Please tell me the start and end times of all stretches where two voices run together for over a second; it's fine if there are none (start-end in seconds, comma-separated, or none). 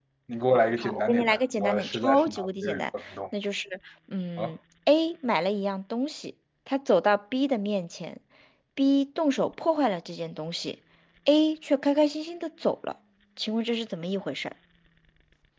0.8-2.8